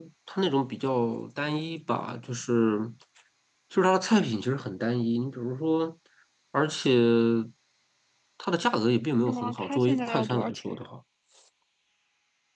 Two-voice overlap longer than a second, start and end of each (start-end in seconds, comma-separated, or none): 9.3-10.6